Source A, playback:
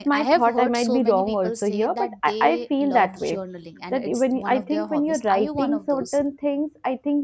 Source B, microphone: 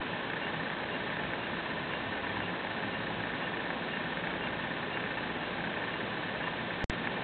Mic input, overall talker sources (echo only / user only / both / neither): neither